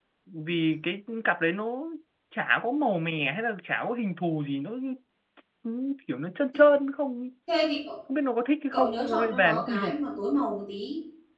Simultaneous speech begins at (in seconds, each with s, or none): 8.7 s